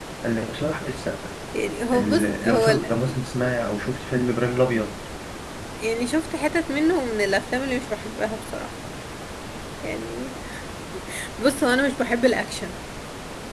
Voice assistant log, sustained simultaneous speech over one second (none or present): present